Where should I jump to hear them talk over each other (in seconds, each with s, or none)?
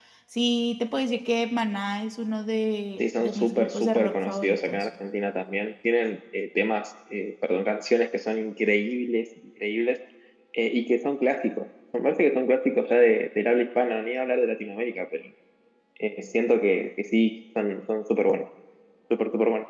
3.0 s